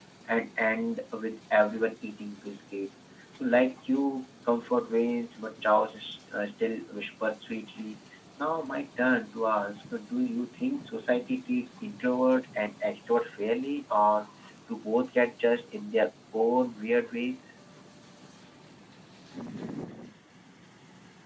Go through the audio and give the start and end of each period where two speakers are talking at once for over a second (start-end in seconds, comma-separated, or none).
none